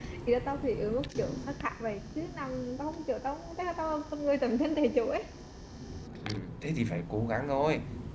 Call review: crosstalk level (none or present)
none